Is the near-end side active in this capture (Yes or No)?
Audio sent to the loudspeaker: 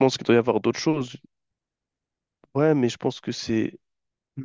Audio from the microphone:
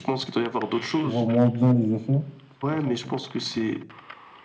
Yes